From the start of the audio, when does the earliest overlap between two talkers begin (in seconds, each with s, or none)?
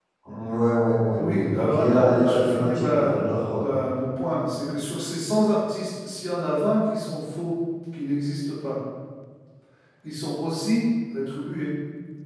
1.2 s